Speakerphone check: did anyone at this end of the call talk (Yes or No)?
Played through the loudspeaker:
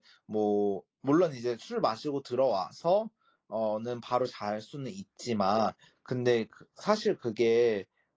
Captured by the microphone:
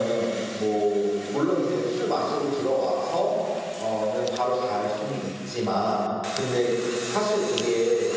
No